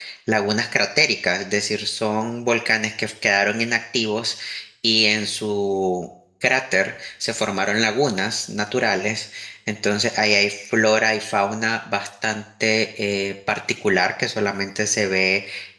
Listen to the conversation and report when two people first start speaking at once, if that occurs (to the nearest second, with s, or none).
none